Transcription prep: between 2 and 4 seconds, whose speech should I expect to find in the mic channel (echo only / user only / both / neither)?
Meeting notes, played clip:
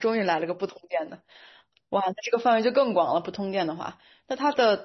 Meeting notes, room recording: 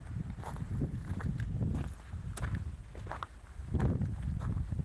neither